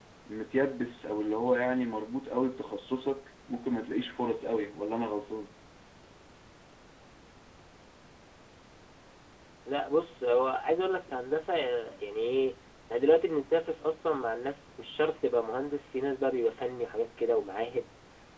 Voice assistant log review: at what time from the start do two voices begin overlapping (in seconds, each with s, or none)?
none